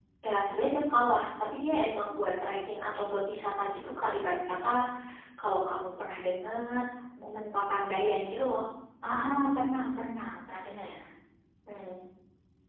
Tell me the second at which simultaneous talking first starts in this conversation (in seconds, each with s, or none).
none